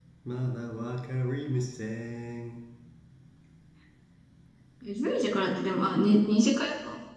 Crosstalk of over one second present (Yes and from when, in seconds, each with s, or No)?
No